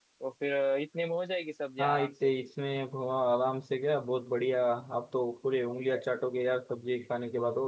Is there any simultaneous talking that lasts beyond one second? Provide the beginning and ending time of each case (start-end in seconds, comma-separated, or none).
none